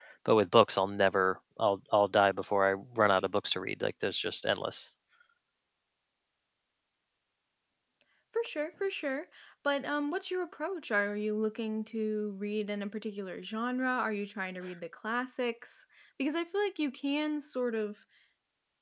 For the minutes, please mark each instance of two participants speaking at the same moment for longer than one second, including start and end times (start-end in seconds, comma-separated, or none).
none